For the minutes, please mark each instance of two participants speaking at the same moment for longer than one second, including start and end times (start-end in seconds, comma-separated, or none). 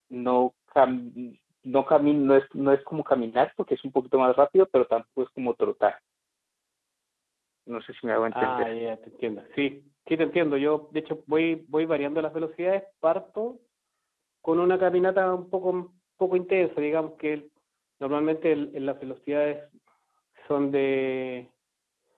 none